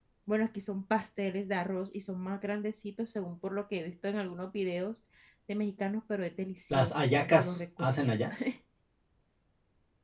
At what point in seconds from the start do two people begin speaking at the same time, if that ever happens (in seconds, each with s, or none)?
6.7 s